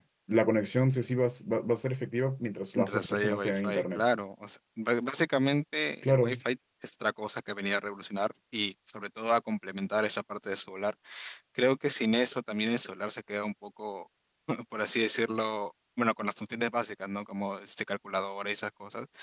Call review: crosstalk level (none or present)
present